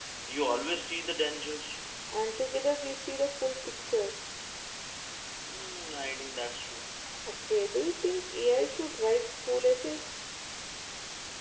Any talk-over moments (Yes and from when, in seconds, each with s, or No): No